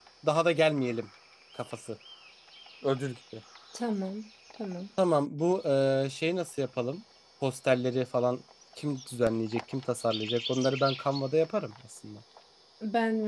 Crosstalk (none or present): none